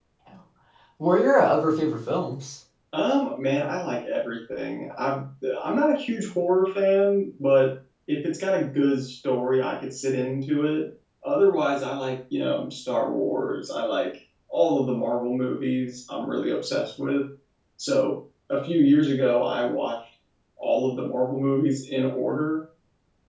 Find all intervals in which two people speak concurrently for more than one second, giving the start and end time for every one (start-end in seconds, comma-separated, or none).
none